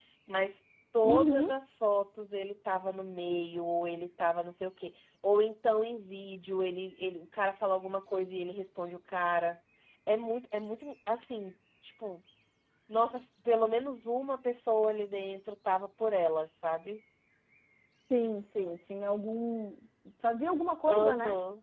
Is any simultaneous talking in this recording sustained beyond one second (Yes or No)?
No